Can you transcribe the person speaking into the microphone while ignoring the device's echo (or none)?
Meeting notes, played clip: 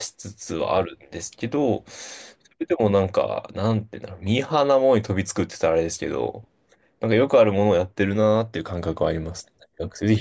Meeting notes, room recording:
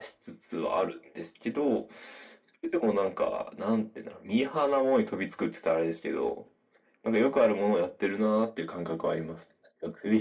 none